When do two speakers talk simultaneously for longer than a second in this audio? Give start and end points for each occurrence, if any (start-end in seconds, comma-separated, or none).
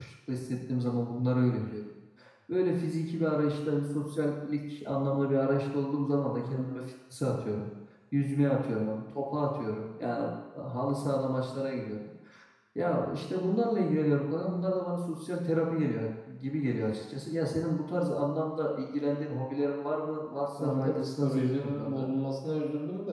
20.6-22.1